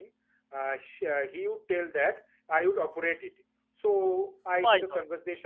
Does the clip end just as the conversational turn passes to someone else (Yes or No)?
No